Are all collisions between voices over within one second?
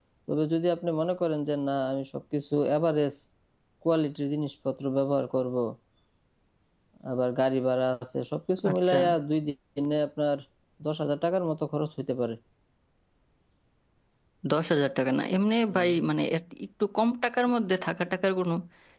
Yes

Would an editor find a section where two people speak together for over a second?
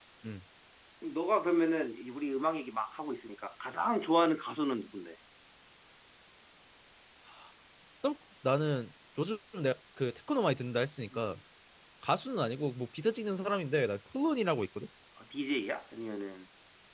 No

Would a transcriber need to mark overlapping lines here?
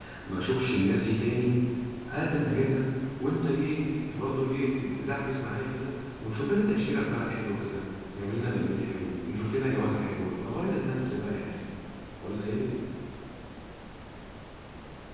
No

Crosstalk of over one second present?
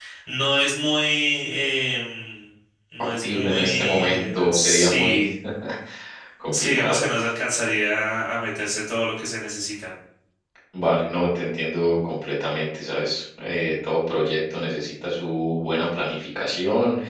Yes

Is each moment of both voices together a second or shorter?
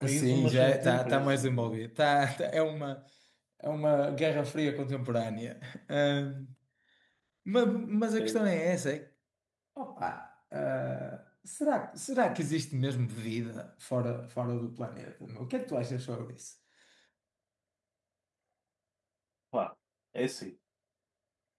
No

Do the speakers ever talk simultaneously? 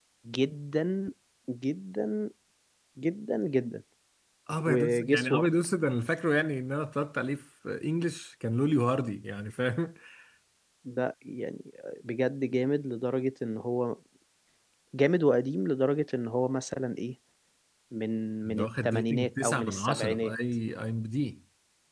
Yes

